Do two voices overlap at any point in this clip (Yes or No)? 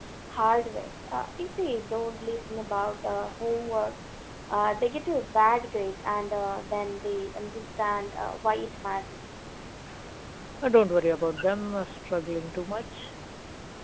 No